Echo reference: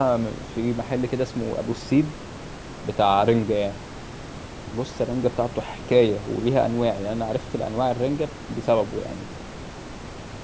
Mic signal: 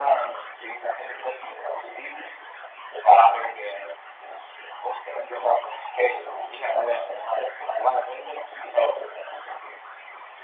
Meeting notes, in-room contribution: none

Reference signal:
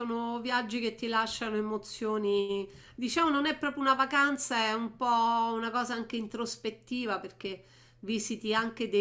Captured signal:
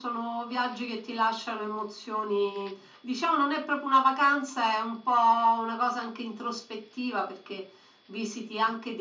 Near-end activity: none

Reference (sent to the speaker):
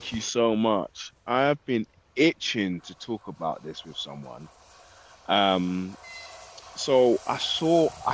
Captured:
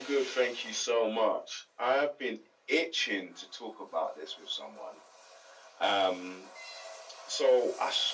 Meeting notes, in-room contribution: none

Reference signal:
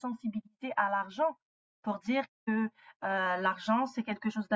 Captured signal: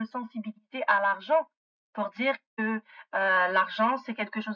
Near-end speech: none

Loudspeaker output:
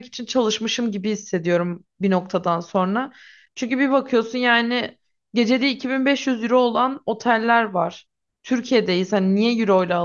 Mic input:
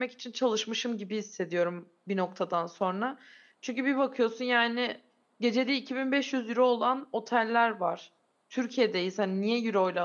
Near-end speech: none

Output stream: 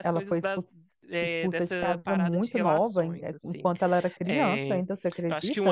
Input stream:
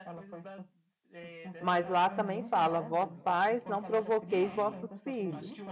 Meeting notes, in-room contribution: present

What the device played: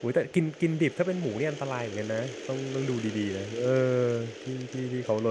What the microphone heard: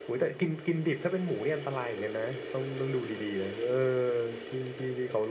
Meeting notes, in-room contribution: none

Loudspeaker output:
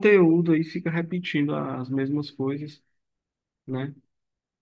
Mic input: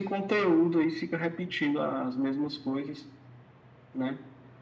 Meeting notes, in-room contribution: none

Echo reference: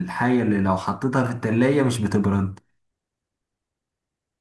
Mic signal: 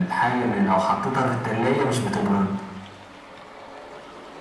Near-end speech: none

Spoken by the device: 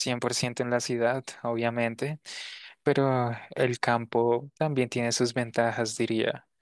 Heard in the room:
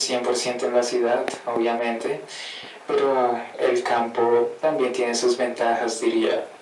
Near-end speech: none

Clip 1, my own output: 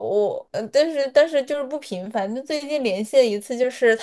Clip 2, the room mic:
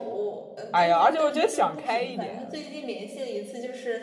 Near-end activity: present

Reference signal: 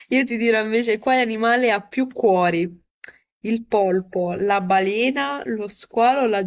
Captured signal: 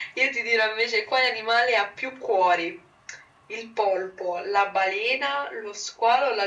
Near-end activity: none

